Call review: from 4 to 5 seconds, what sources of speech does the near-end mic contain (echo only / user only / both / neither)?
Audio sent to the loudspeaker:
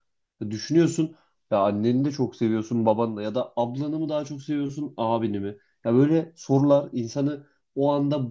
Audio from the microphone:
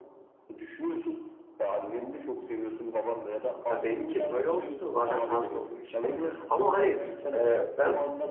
both